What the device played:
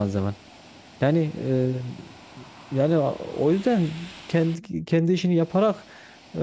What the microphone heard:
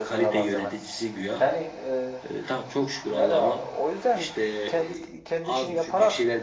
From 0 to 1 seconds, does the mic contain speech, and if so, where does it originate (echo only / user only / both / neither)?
both